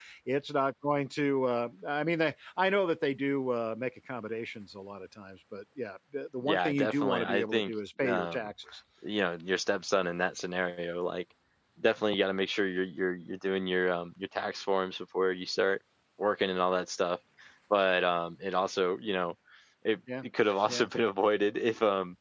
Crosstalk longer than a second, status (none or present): present